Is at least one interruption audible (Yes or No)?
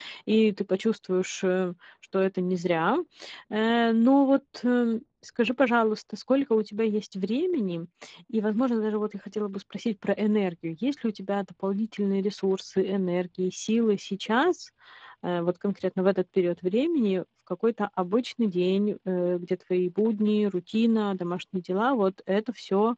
No